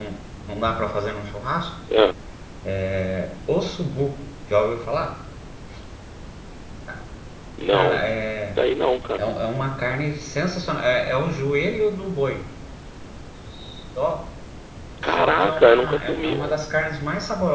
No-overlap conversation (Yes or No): No